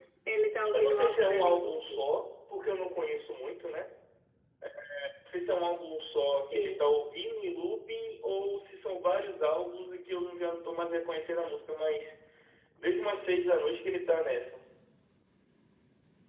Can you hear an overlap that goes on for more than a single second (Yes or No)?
Yes